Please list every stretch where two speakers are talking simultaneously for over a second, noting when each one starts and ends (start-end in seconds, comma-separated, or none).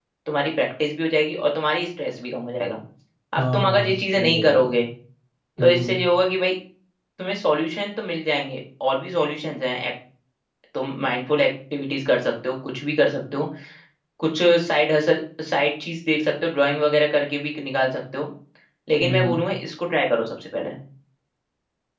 3.4-4.8